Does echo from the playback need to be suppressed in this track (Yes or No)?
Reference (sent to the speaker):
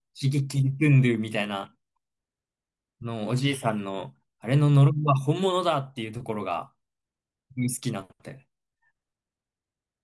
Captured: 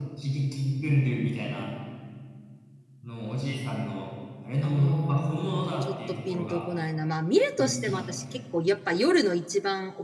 Yes